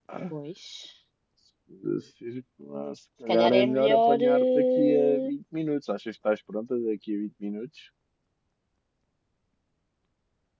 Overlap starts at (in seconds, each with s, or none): 3.3 s